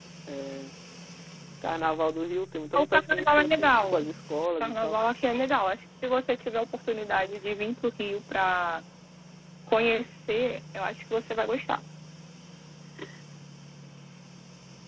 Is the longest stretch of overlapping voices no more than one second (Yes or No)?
No